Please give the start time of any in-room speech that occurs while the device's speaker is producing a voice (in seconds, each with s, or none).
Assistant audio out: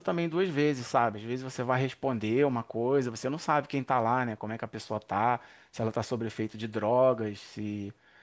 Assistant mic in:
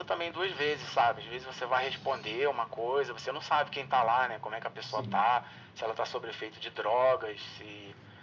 4.8 s